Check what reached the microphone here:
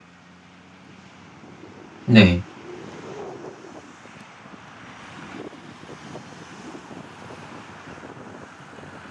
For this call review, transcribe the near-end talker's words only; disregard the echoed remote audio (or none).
네.